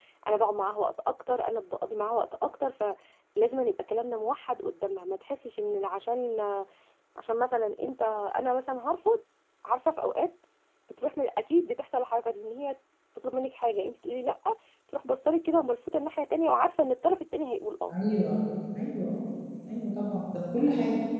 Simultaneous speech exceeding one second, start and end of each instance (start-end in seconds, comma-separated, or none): none